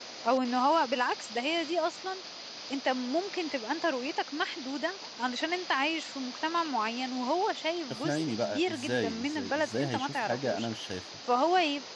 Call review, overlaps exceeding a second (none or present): present